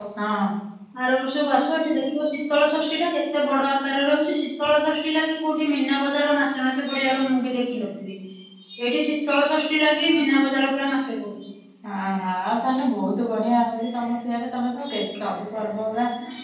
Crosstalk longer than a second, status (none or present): none